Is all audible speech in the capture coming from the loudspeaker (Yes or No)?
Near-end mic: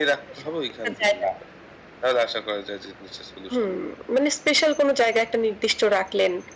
Yes